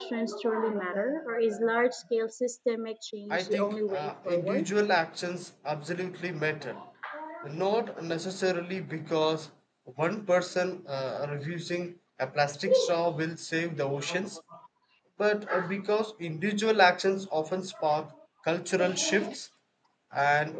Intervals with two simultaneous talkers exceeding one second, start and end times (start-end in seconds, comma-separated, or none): 3.3-4.7